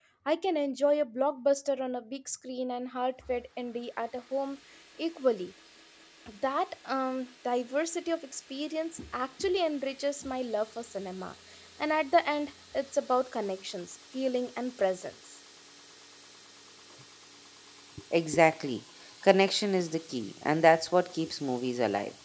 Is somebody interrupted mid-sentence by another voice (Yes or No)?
No